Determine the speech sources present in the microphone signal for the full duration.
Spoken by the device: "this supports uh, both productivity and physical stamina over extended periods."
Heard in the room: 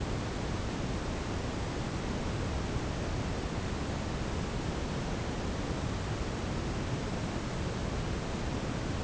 neither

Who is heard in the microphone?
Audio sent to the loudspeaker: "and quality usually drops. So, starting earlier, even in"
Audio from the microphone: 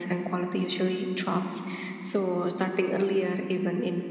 echo only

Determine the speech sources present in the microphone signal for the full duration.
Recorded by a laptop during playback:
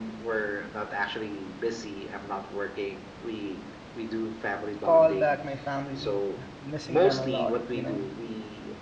both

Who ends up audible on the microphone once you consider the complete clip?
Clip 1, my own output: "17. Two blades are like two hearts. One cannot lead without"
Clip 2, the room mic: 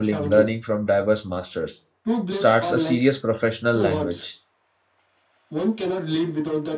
both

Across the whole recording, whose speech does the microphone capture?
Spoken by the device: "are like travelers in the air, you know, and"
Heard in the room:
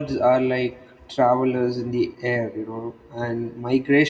echo only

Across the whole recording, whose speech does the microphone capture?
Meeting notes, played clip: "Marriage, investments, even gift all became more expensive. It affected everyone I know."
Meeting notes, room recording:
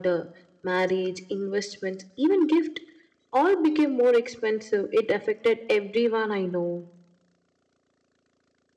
echo only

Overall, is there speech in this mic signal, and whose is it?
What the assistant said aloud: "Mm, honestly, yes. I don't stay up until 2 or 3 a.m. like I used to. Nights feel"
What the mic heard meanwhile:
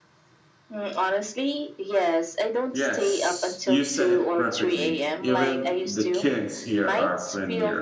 both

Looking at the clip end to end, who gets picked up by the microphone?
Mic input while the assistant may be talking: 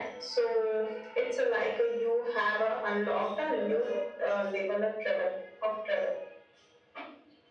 echo only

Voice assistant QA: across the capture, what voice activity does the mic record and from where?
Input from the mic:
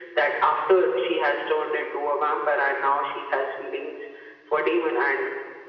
echo only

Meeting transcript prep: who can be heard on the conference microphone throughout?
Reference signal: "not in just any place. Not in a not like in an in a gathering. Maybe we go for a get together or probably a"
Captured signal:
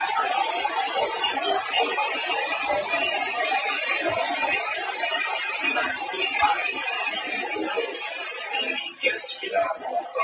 echo only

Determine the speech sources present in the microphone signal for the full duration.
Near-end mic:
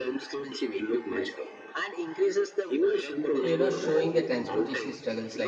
both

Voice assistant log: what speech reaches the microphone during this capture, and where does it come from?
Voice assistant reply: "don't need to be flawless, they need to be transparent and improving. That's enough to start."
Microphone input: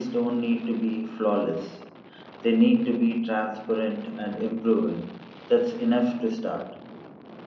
echo only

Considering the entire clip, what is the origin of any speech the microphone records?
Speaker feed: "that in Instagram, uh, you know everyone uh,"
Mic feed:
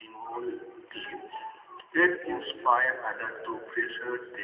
user only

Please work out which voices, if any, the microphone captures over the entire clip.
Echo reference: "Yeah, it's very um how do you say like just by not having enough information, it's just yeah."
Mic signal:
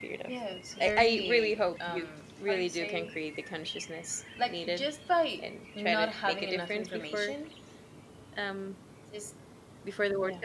both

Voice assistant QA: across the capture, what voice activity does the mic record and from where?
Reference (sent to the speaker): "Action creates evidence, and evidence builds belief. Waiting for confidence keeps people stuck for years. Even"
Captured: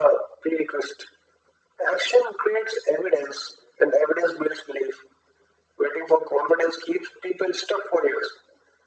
echo only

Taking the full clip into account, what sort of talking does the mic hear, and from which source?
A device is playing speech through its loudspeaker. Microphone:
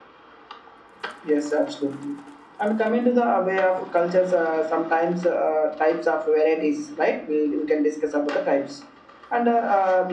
echo only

